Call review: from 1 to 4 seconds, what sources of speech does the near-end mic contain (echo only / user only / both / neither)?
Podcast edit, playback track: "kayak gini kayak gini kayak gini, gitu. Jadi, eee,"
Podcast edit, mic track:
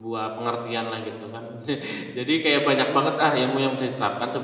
user only